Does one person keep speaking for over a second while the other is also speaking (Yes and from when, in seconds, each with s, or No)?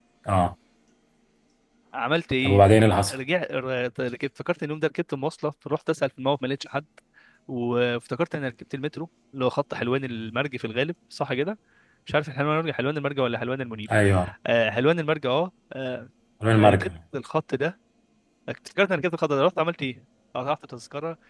No